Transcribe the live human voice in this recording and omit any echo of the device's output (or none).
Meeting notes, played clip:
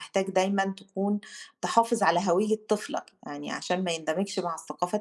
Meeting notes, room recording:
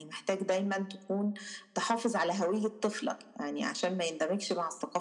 none